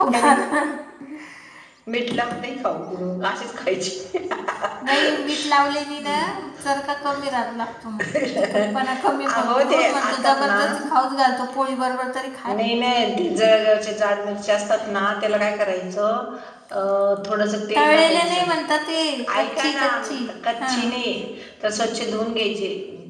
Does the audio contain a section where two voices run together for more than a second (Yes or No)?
Yes